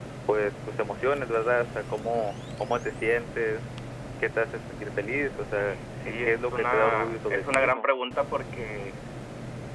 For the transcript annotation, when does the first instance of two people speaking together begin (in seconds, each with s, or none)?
5.9 s